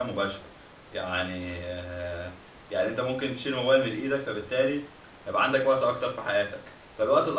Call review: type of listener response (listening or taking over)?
listening